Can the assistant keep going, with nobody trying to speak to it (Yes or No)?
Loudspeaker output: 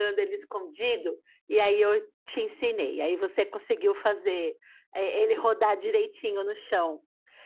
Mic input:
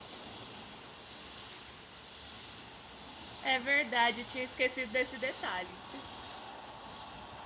No